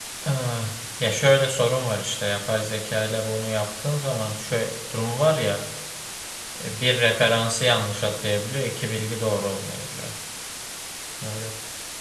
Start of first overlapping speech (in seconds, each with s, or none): none